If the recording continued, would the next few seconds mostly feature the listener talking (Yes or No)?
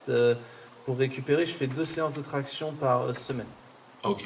Yes